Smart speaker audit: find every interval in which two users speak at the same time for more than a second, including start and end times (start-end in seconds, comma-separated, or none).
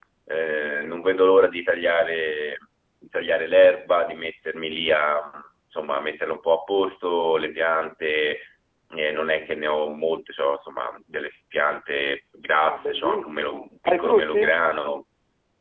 12.6-14.6